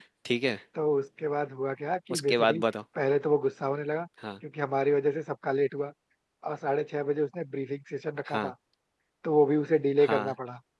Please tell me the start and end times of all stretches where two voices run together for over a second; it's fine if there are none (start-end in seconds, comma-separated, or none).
none